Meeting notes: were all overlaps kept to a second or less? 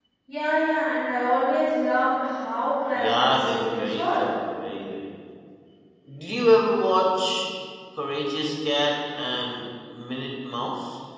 No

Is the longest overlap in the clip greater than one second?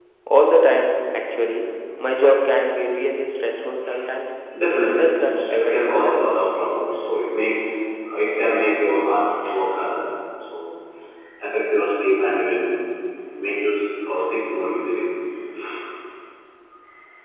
Yes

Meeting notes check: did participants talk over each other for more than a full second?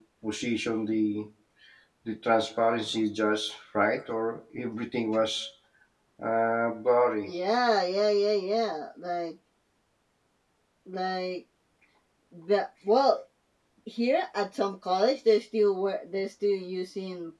No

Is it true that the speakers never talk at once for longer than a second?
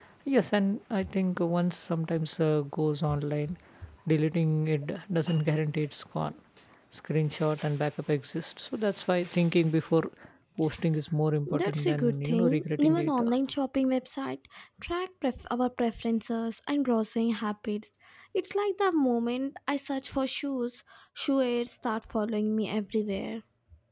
No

